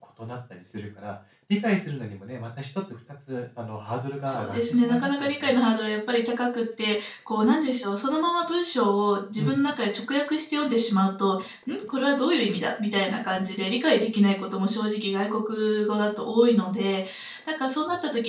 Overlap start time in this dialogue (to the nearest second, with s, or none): 4 s